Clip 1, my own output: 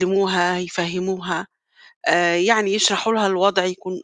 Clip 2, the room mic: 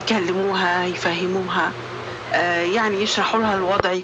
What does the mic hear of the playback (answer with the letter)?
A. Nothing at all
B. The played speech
B